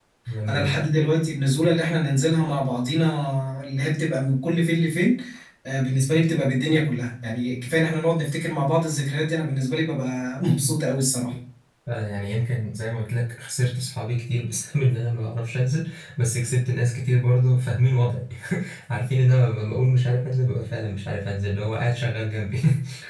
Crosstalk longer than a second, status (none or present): none